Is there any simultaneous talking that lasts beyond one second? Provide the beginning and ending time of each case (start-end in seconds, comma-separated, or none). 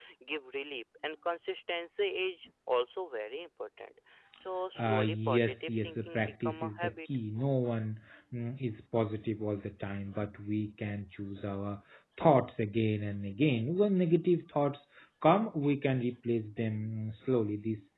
4.8-7.1